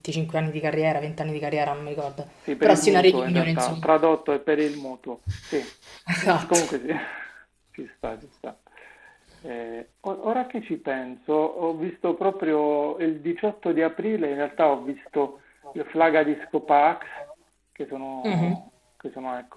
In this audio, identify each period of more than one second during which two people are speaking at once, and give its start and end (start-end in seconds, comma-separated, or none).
2.6-3.9